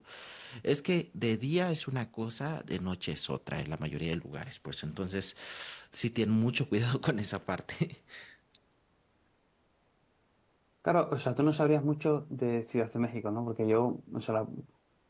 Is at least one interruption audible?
No

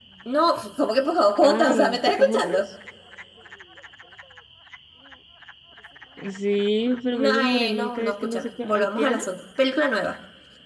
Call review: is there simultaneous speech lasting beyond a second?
Yes, from 1.4 s

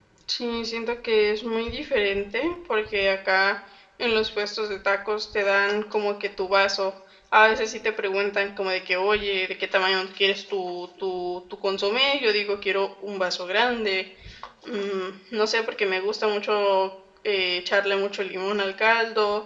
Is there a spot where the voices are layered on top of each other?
No

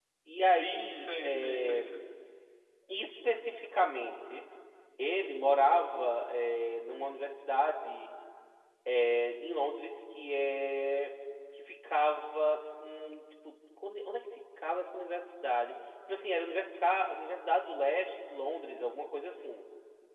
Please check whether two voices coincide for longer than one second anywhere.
Yes, from 0.5 s

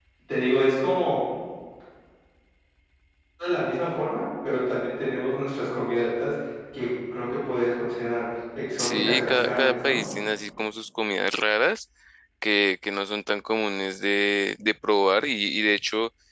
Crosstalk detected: Yes, from 8.8 s

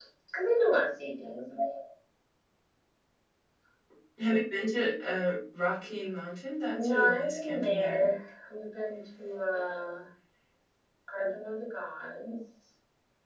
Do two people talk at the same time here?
Yes, from 6.7 s

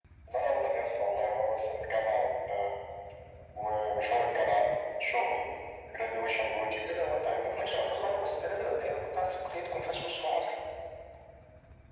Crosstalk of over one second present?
Yes, from 6.8 s

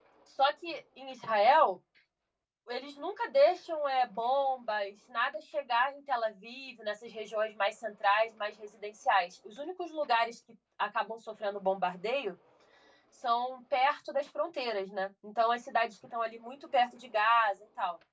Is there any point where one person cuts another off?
No

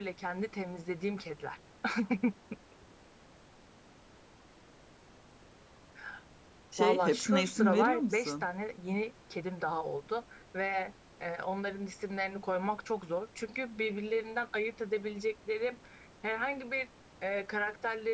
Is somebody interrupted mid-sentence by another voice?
Yes, from 6.8 s

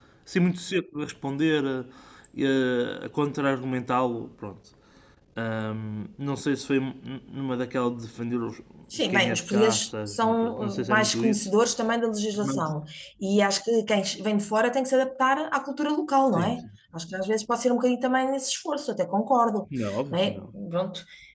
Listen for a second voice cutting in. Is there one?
Yes, from 9.1 s

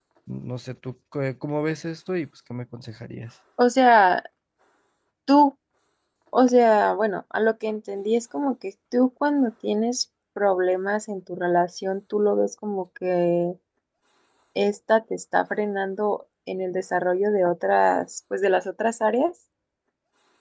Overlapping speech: No

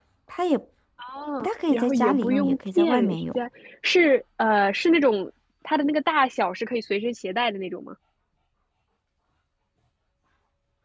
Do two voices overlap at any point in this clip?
Yes, from 1.7 s

